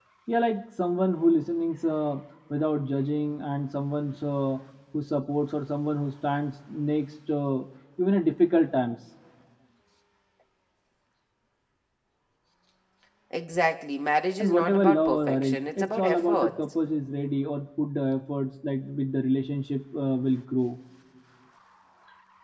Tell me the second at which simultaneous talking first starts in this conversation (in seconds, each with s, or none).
14.4 s